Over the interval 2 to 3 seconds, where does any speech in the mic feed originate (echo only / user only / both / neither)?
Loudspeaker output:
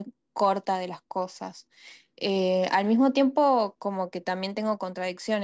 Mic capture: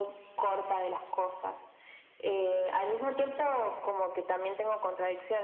echo only